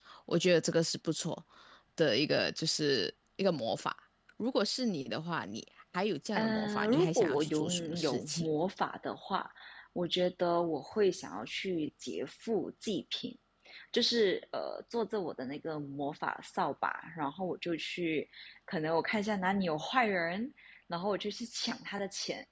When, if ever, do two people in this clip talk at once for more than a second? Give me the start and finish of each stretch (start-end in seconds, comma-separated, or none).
6.3-8.5